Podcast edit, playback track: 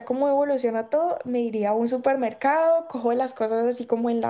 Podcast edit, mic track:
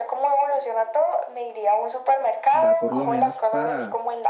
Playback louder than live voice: Yes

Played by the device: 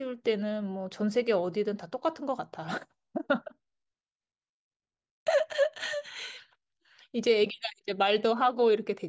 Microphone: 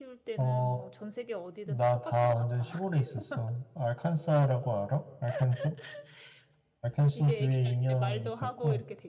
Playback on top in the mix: No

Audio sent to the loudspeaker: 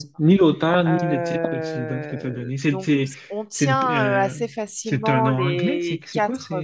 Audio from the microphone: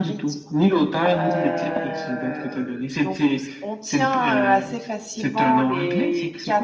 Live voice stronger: No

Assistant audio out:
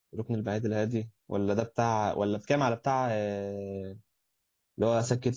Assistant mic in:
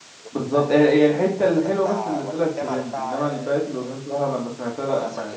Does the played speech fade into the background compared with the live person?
Yes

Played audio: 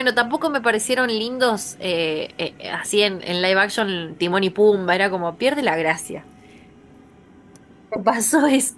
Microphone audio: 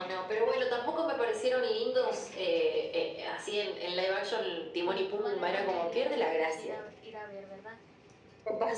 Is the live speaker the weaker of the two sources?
Yes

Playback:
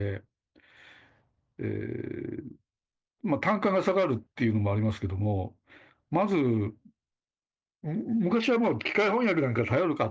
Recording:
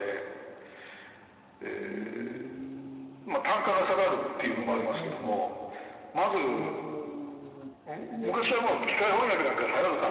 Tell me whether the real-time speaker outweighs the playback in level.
No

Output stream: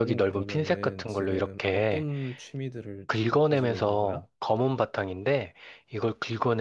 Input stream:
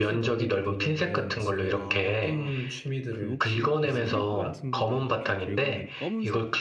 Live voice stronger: No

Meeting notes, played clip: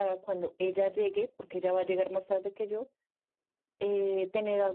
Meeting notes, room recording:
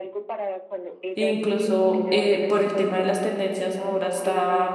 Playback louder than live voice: No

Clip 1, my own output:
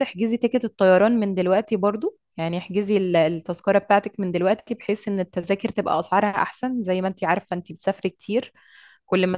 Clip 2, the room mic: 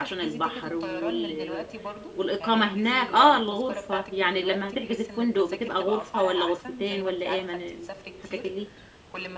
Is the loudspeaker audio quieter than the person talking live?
Yes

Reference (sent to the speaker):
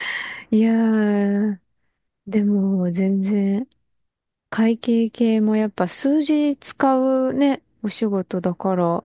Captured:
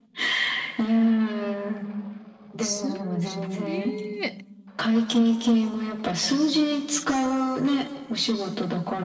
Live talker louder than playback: No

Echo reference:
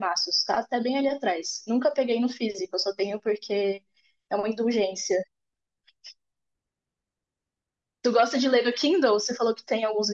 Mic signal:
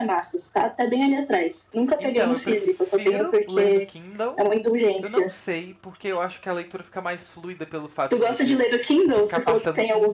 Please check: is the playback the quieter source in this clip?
No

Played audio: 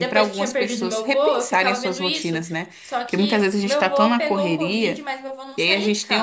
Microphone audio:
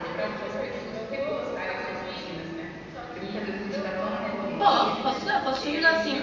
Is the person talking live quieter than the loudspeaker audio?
No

